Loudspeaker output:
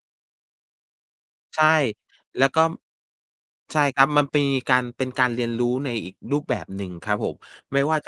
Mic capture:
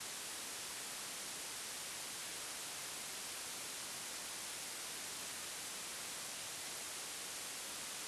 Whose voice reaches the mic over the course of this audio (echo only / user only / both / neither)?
neither